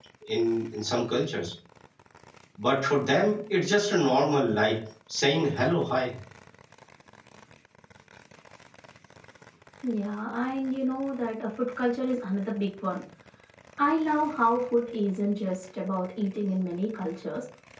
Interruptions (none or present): none